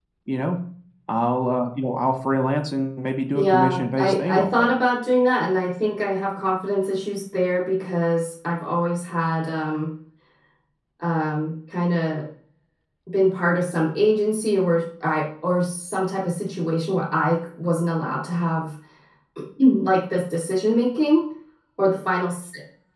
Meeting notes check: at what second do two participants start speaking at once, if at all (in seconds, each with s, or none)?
3.3 s